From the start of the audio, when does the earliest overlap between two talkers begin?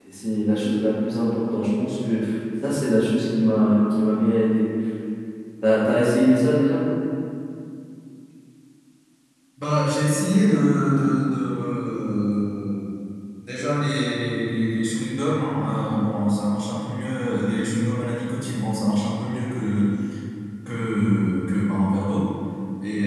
none

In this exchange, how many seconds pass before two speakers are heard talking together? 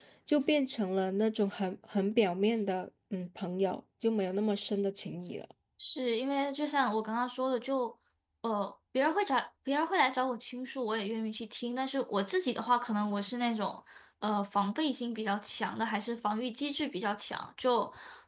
none

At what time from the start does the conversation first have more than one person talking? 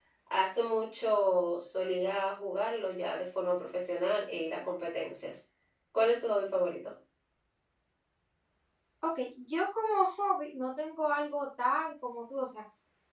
none

